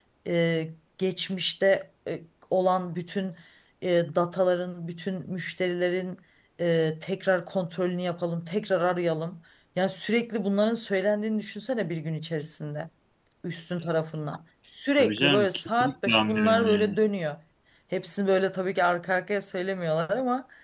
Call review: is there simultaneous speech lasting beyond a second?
Yes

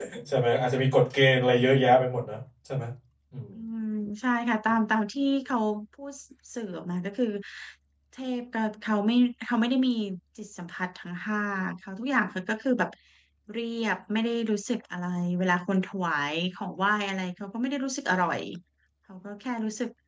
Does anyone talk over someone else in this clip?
No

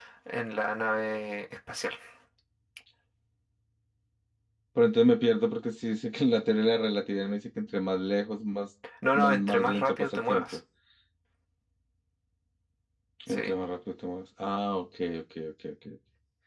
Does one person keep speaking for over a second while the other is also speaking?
Yes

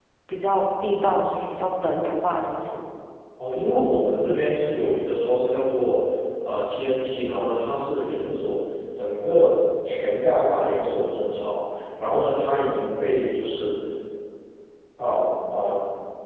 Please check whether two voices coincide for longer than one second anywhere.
No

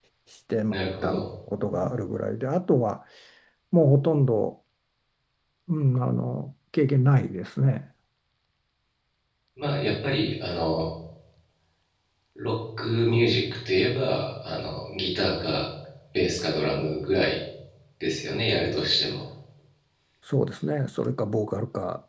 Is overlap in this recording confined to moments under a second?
Yes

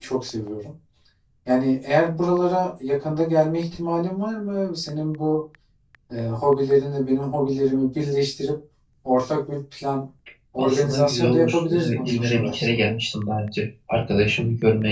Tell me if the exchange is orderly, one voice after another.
No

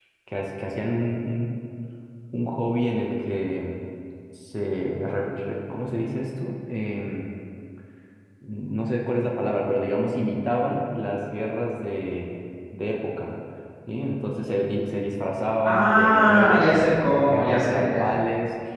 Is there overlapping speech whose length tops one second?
Yes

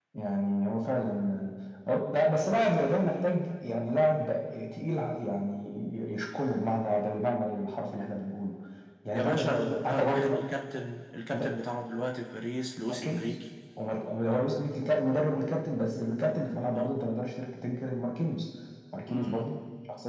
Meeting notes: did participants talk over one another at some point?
Yes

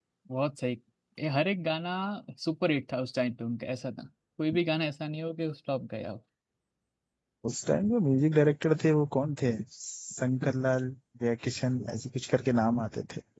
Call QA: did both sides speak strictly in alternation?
Yes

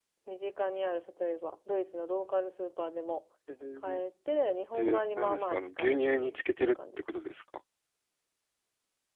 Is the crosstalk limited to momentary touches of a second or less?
No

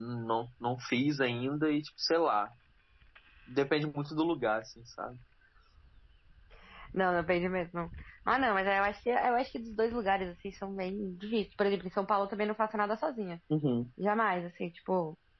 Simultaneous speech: No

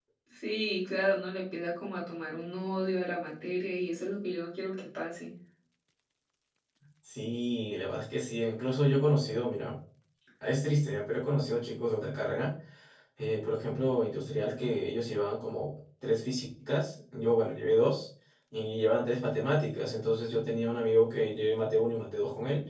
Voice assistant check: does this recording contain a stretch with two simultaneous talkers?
No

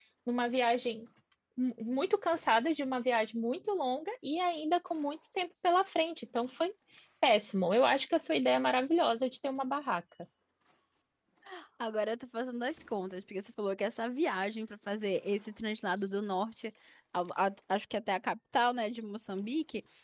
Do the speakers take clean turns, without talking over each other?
Yes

